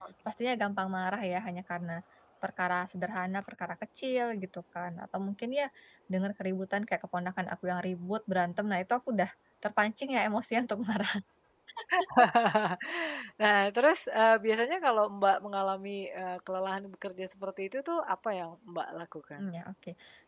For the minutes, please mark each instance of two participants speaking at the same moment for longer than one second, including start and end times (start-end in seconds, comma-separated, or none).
none